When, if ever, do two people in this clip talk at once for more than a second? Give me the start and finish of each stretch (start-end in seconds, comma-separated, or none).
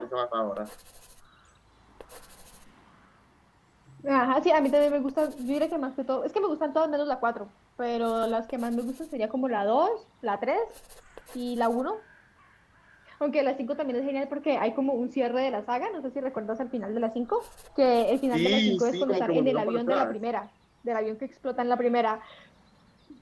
18.3-20.1